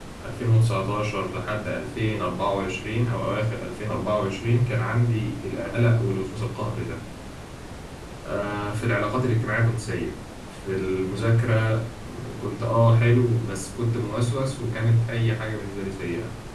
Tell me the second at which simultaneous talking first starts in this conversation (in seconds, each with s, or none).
none